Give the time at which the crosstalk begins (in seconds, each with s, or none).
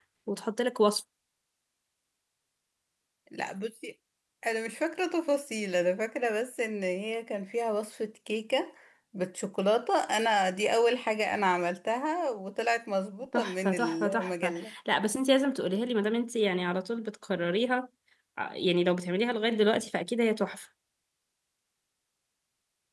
13.3 s